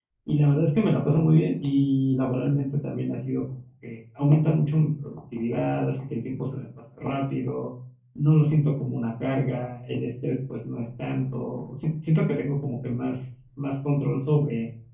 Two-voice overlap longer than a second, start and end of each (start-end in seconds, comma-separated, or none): none